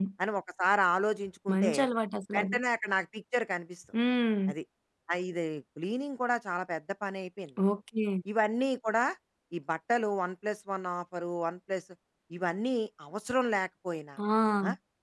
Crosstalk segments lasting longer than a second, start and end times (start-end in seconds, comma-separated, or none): none